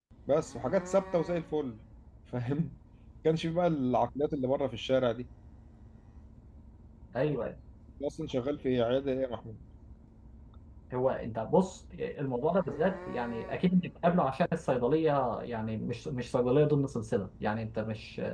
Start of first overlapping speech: none

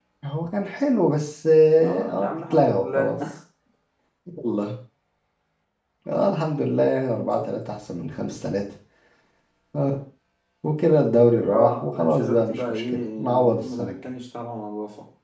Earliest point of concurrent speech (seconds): 1.8 s

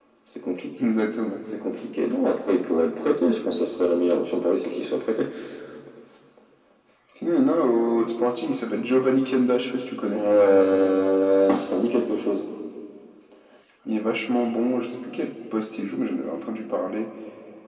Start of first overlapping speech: none

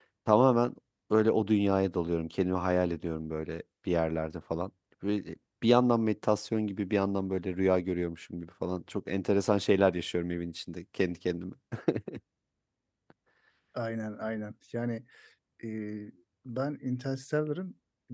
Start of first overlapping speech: none

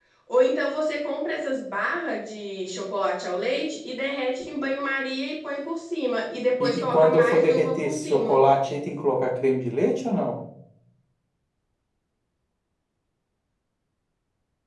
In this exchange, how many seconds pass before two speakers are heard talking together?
6.6 s

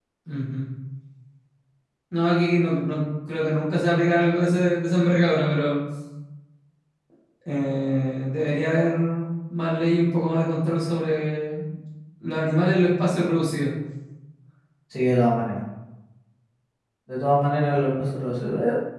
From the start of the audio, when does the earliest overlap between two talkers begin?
none

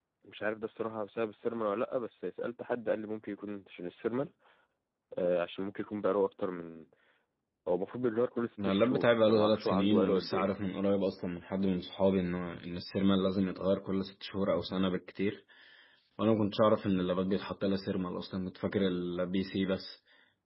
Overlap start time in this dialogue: 8.6 s

